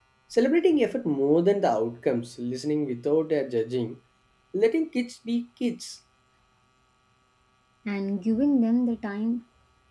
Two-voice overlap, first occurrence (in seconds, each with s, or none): none